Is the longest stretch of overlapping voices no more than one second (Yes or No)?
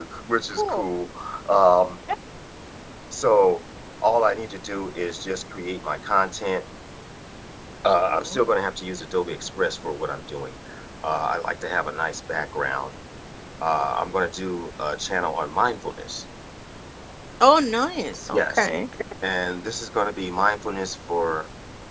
Yes